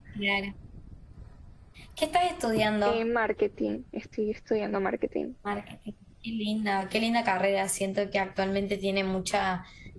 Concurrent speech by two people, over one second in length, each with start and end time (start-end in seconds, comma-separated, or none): none